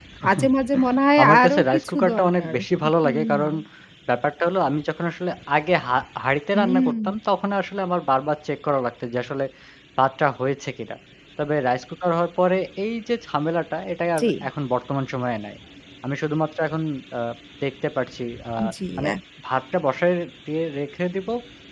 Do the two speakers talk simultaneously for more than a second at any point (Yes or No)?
Yes